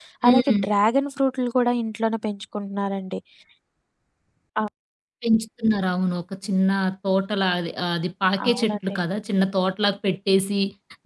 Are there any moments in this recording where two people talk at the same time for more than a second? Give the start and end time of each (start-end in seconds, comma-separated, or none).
none